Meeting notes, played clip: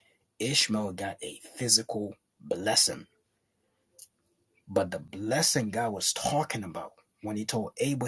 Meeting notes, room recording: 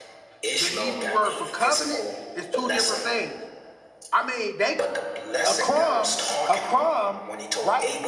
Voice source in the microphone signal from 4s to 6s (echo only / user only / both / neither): both